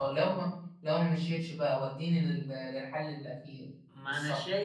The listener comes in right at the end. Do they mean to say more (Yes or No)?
Yes